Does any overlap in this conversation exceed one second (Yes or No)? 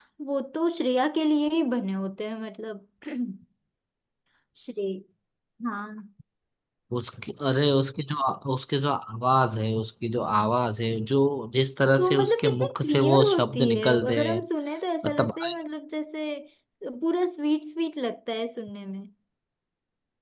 Yes